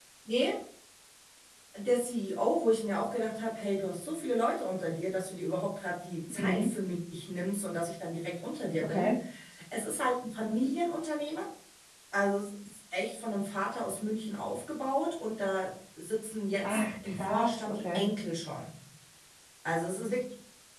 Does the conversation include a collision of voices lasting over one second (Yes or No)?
Yes